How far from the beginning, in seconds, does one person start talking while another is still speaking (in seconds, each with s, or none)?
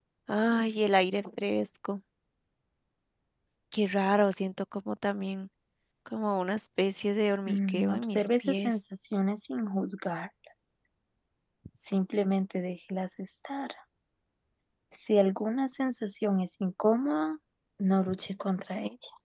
7.5 s